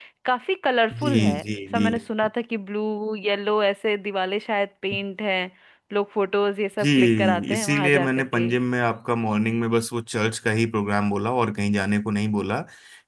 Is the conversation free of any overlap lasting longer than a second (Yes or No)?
No